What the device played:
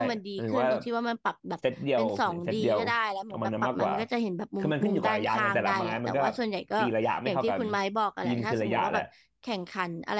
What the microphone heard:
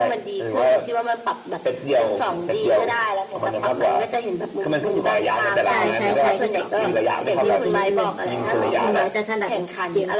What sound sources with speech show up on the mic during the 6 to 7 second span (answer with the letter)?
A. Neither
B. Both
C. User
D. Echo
B